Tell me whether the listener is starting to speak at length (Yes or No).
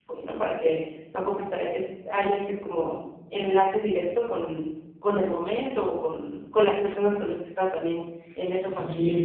Yes